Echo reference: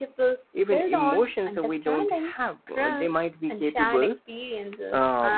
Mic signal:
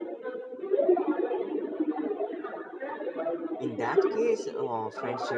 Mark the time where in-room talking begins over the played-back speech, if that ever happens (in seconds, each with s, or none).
3.6 s